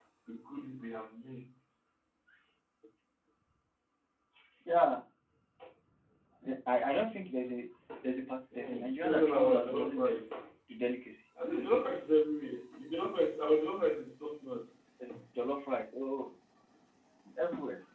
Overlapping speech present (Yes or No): Yes